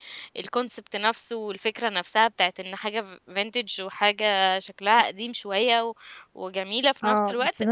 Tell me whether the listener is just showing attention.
No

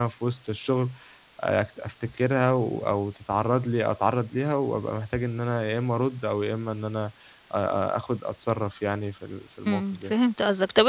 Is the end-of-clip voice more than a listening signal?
Yes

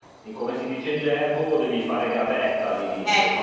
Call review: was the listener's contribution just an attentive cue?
No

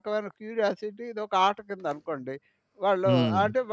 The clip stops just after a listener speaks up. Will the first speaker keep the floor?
Yes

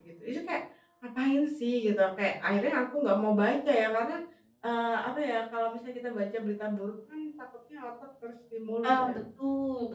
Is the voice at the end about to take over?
Yes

